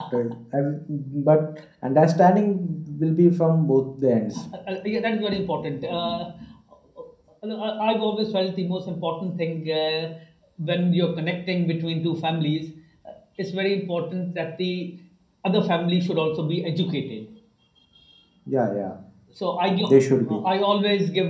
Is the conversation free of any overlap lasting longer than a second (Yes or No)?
Yes